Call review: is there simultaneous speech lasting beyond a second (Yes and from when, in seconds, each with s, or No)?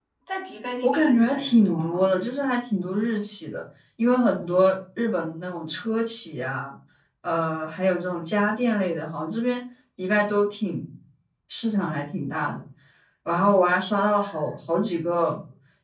Yes, from 0.8 s